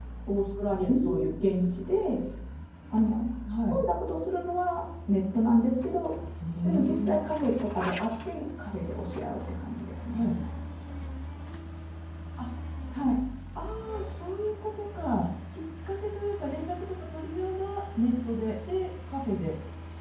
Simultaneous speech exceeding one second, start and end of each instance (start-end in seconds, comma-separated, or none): none